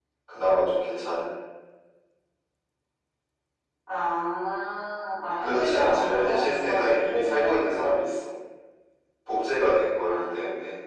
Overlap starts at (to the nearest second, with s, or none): 5 s